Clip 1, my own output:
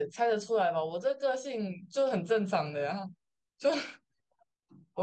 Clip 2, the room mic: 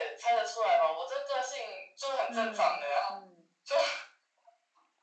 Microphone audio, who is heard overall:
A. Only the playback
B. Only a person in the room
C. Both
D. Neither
C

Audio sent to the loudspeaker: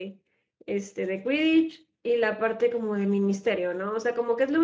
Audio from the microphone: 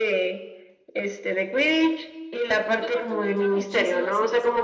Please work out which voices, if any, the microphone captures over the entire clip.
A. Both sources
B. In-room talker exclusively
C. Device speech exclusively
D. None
A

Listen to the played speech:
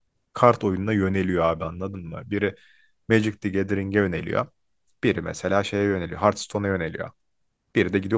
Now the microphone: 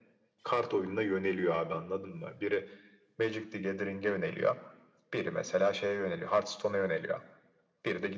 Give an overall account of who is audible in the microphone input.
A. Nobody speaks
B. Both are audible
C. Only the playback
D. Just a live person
C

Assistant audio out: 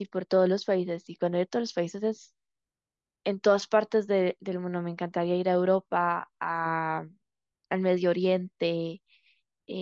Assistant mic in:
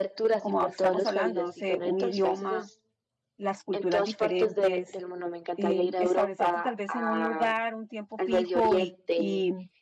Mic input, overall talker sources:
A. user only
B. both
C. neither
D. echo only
B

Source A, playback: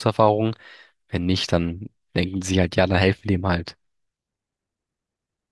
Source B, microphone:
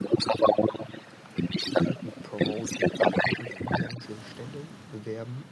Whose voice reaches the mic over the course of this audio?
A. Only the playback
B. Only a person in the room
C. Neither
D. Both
D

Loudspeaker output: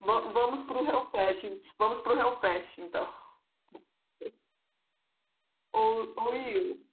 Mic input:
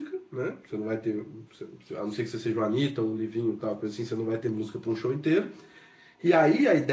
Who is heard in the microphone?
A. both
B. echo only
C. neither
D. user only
D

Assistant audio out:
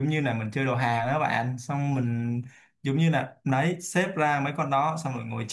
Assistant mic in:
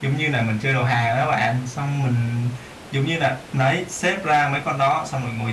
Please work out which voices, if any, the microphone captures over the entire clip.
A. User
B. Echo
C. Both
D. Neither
B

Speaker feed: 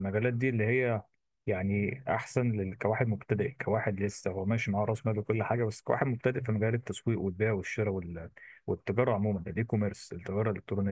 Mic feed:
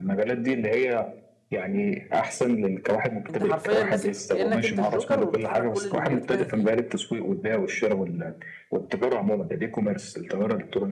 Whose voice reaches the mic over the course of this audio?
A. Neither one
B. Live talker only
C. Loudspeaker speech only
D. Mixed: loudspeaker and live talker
D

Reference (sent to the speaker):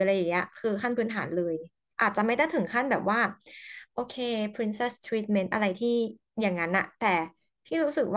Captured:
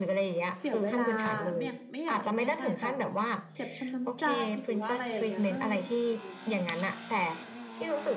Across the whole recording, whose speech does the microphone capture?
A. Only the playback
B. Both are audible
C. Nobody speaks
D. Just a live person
B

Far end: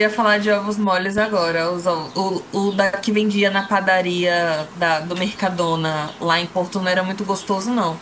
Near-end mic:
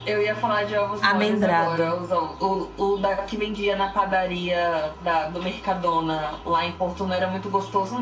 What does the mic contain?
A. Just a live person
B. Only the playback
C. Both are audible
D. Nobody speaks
C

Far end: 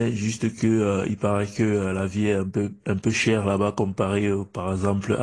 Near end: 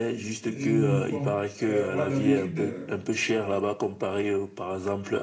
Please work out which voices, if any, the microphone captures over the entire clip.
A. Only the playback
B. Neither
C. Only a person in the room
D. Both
D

